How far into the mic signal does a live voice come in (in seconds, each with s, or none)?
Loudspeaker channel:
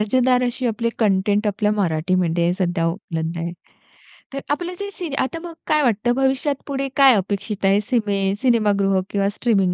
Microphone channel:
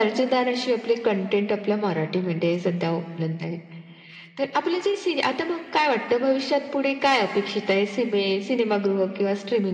none